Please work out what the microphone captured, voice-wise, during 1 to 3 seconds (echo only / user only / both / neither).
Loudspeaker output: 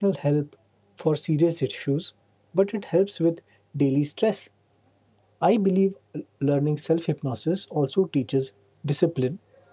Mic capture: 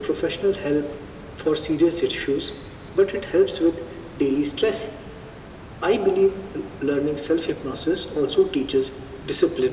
echo only